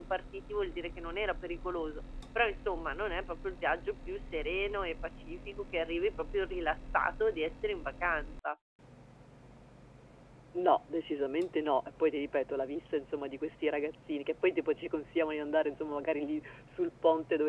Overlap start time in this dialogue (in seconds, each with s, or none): none